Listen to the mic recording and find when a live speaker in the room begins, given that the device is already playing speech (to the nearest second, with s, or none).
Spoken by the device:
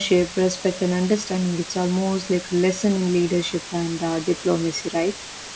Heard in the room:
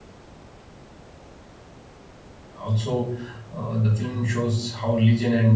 3 s